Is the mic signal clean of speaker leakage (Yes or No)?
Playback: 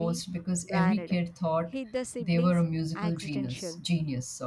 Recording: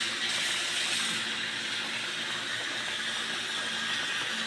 Yes